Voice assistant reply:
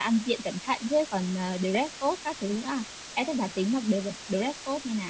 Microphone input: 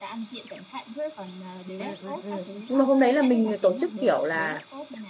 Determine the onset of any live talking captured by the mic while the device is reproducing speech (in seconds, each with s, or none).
1.8 s